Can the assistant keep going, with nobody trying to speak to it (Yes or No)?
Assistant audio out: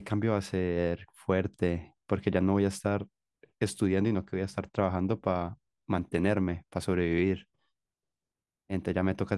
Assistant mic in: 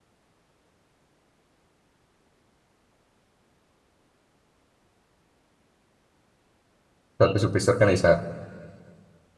No